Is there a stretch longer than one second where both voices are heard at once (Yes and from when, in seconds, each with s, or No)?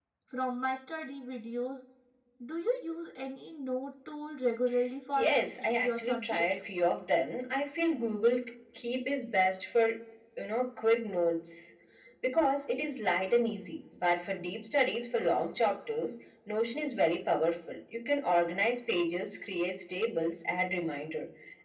Yes, from 5.2 s